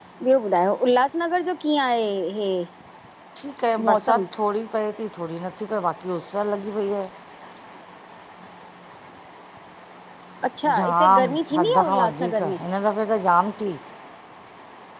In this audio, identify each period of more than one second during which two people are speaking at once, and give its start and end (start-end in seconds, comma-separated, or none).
10.8-12.6